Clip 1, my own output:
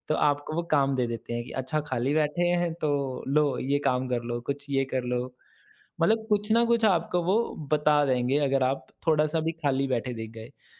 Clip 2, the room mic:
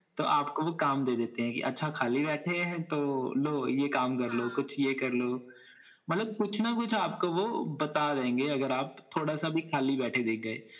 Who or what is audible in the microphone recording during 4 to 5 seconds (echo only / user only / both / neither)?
both